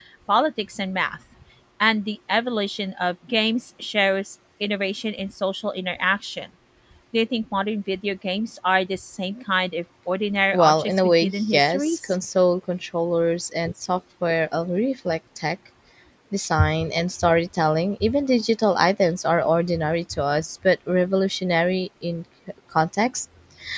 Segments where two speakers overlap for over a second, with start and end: 10.5-12.2

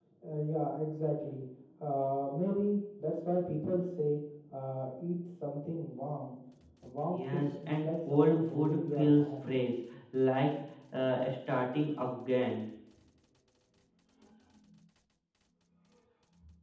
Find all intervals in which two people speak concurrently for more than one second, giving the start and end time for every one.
7.1-9.5

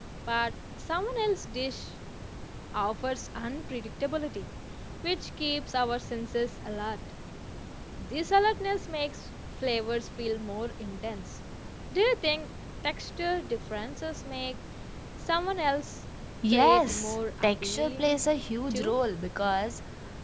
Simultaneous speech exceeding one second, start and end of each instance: 16.5-18.2

